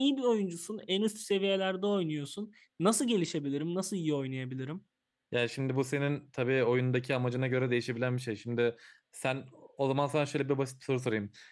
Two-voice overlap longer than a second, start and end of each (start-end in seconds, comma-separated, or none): none